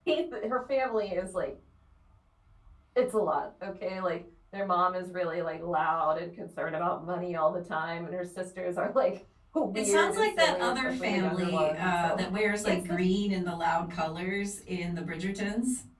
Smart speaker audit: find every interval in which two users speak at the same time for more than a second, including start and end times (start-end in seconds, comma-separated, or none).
9.8-12.2